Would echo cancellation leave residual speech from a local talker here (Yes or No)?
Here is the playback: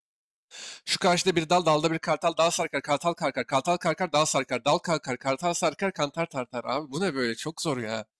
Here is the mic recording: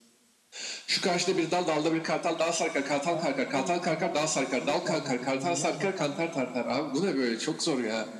Yes